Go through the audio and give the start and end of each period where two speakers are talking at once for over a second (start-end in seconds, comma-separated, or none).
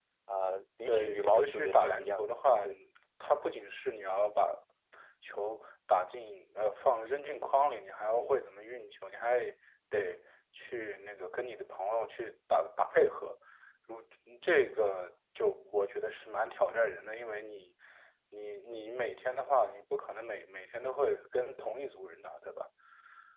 0.8-2.7